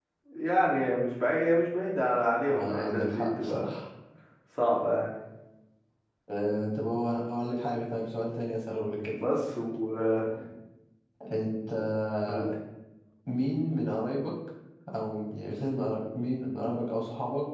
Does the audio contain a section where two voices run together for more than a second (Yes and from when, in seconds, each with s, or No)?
Yes, from 2.5 s